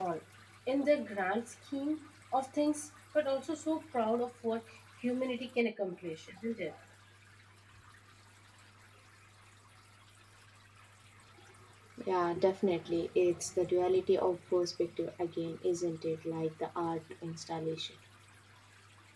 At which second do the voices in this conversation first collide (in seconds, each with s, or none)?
none